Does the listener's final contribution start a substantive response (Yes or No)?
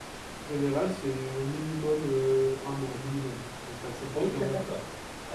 Yes